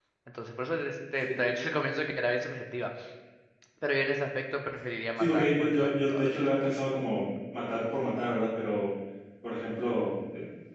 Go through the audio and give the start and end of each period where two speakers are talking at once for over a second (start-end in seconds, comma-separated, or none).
5.2-6.4